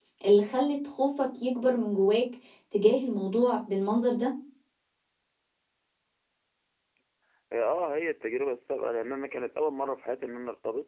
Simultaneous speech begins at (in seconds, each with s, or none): none